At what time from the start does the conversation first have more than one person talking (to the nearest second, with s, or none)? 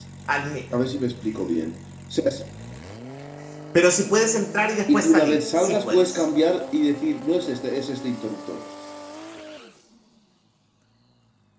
5 s